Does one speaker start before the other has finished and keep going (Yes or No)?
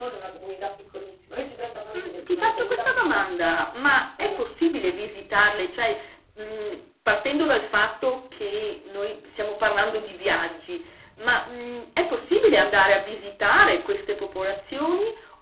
Yes